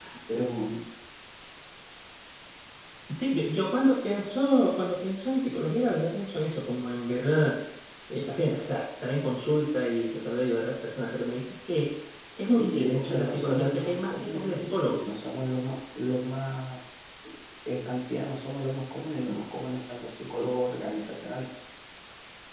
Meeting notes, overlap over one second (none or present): present